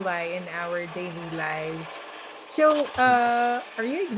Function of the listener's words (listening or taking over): listening